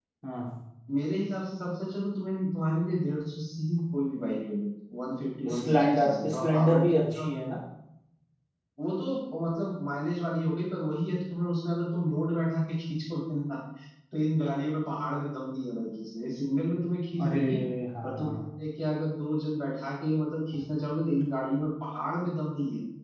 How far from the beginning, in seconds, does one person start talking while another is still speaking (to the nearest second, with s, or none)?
6 s